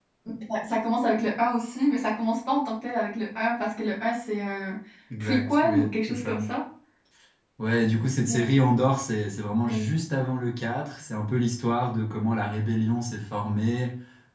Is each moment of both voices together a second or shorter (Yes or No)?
No